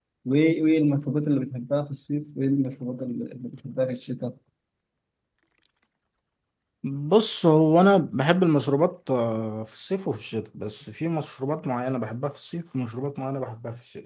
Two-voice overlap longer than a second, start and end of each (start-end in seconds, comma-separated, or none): none